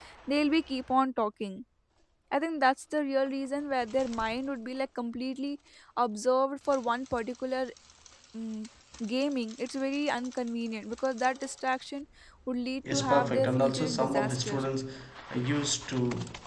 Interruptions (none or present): present